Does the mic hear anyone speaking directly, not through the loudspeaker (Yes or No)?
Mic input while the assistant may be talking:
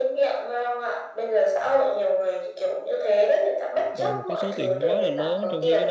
Yes